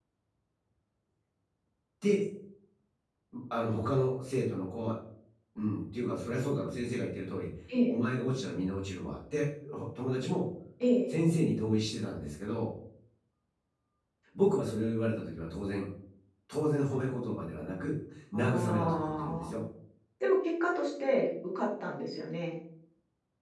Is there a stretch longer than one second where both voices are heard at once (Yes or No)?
Yes